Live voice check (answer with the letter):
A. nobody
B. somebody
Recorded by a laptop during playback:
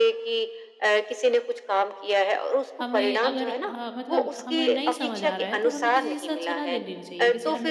B